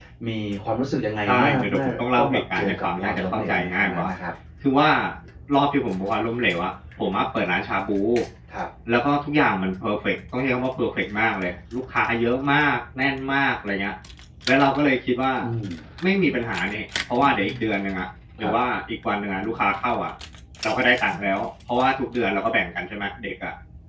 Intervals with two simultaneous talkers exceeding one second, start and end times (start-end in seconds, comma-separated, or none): 1.3-4.1